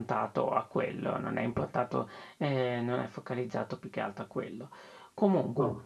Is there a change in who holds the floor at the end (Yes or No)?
No